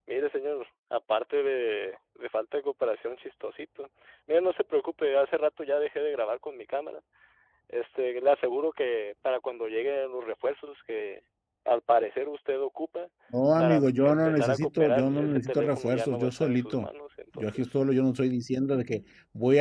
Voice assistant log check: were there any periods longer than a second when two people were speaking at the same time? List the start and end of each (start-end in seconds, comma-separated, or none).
13.6-16.9